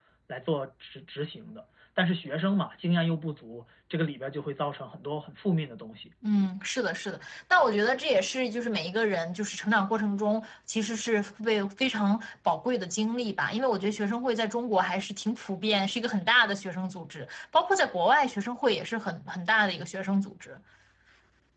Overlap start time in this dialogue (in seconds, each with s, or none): none